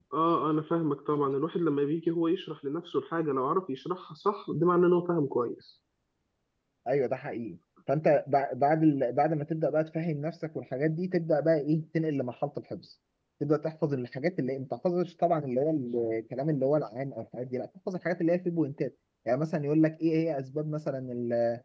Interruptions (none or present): none